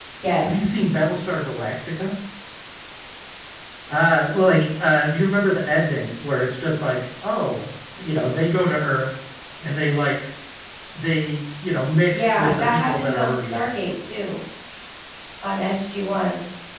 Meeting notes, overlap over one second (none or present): present